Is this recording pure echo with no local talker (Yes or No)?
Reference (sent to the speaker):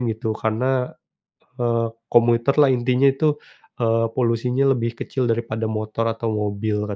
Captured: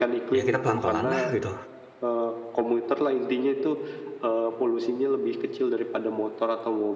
No